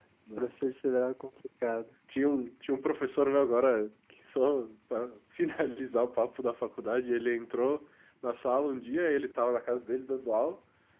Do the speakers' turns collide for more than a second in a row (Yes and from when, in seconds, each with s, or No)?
No